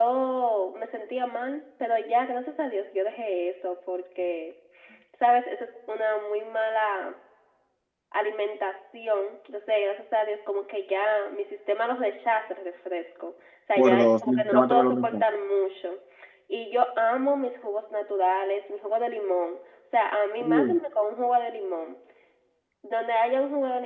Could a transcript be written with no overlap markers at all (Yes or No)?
No